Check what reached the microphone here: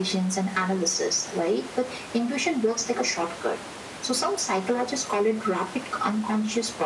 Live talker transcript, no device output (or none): none